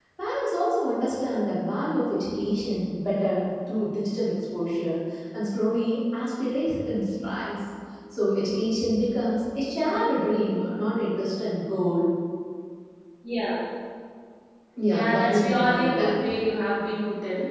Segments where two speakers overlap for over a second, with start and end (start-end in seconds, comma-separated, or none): 14.8-16.3